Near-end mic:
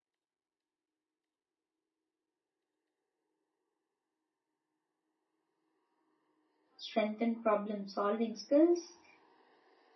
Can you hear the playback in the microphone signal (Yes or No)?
No